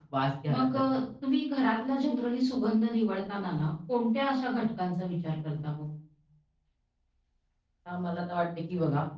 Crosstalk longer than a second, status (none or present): none